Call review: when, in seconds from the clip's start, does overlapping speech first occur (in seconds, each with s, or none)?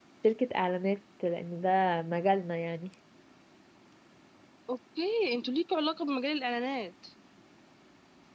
none